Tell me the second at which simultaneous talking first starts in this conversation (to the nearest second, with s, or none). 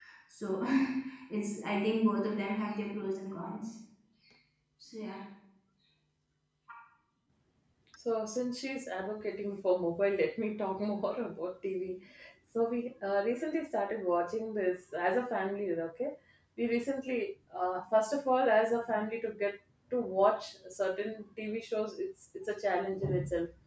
none